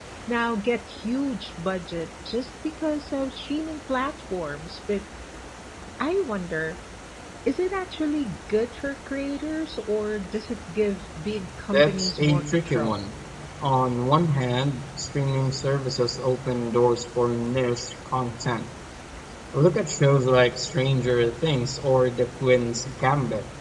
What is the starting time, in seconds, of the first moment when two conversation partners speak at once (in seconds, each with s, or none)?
11.7 s